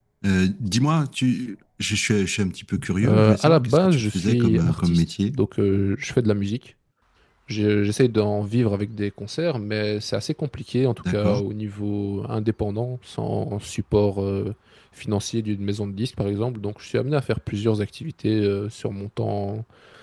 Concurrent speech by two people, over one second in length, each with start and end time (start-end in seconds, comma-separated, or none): 3.0-5.3